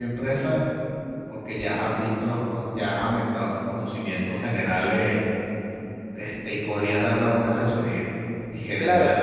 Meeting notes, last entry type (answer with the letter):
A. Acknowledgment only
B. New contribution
A